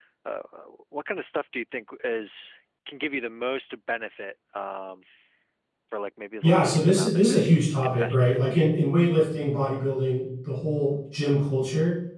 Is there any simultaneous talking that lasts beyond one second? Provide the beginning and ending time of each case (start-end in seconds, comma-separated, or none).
6.4-8.4